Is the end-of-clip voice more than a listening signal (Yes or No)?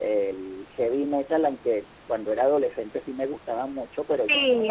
Yes